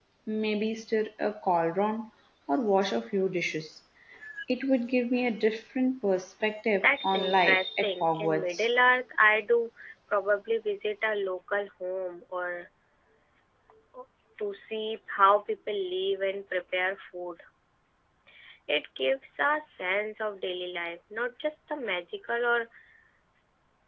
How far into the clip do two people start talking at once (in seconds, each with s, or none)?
6.8 s